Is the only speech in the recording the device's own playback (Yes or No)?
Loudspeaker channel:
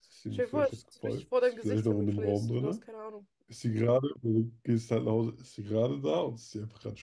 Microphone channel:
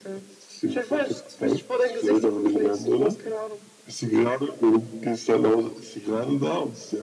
Yes